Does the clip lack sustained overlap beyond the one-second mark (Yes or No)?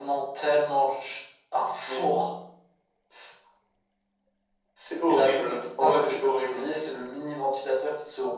No